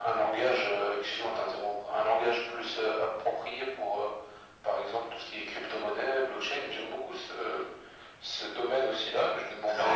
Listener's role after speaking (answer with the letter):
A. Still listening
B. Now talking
A